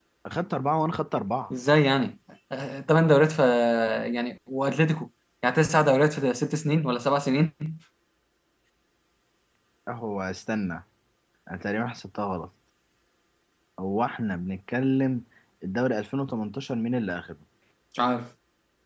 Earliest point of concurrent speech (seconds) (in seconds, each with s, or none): none